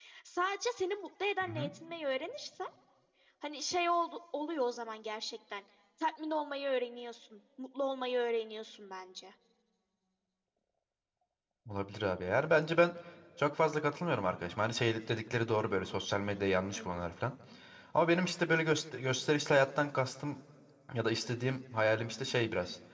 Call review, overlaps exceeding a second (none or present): none